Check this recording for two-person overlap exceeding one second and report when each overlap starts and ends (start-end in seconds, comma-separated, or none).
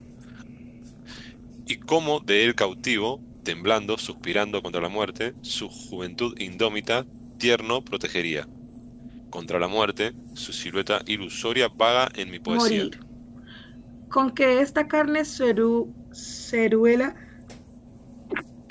none